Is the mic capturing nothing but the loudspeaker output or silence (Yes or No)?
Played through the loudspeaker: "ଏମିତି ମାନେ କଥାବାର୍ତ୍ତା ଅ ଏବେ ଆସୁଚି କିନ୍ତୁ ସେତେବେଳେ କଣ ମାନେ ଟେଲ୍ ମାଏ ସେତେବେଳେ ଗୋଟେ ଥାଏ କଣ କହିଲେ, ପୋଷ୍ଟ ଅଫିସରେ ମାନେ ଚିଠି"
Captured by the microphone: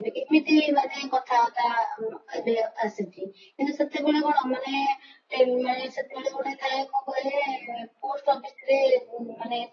Yes